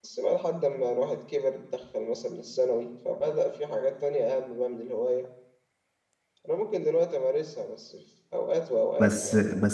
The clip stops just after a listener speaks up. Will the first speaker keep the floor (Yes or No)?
No